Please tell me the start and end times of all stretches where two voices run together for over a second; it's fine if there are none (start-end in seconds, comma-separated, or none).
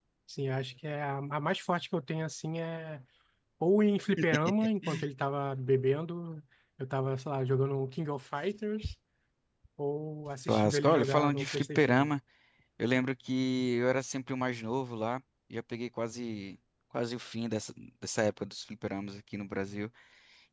10.5-12.1